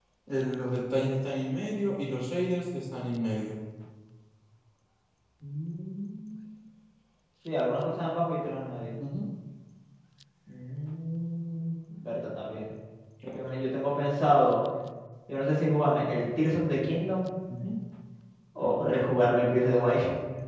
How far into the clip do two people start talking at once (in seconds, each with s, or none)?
none